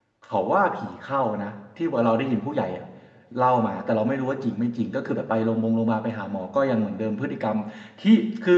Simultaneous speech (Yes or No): No